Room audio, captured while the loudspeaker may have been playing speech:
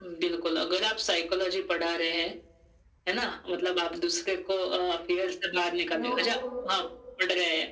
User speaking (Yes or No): Yes